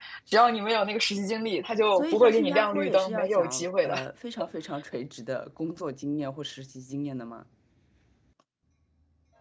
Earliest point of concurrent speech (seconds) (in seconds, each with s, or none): 1.9 s